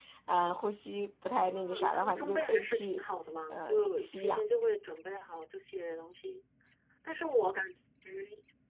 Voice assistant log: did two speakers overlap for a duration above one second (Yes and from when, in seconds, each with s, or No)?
Yes, from 1.3 s